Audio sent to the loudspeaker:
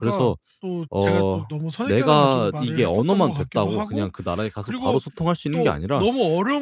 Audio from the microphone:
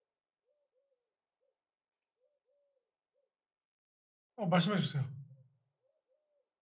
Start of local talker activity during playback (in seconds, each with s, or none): 4.3 s